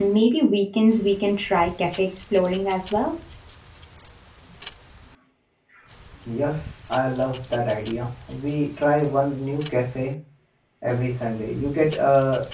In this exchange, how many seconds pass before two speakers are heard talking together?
none

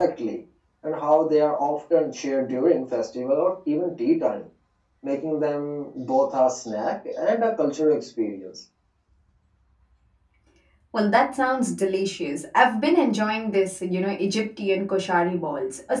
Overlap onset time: none

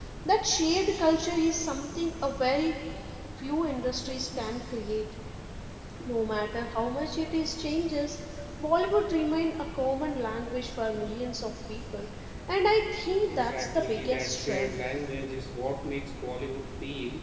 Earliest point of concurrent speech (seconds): 13.2 s

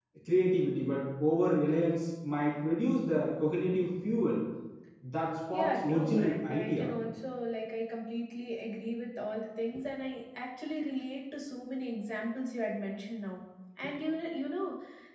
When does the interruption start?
5.5 s

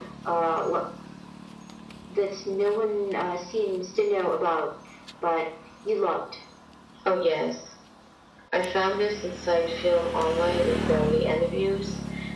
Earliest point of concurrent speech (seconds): none

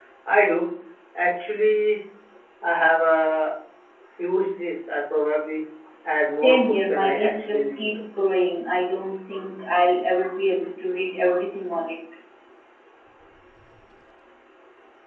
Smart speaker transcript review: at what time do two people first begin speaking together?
6.3 s

